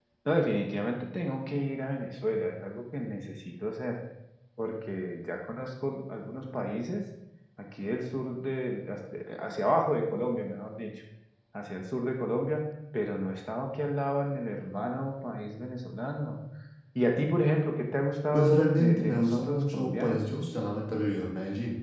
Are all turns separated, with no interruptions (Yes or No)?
No